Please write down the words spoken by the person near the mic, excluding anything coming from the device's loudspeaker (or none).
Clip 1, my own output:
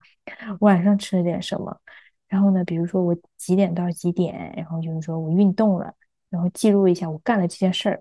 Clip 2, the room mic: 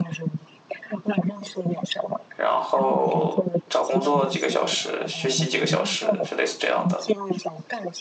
然后找工作几个小时，学习几个小时，就类似这样的。